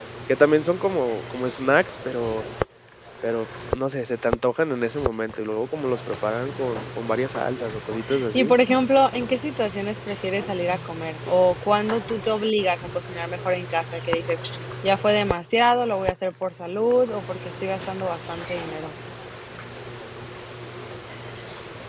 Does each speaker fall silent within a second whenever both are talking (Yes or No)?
Yes